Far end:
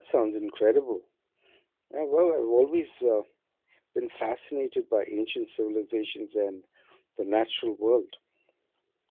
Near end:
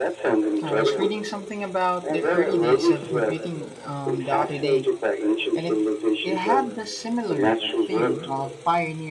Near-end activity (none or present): present